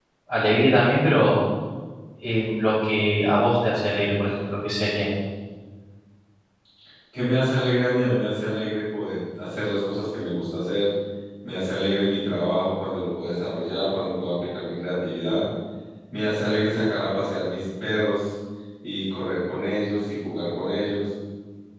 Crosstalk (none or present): none